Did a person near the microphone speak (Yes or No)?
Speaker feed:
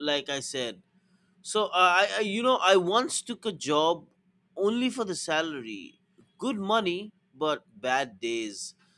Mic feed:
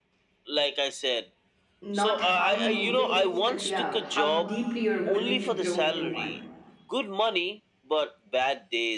Yes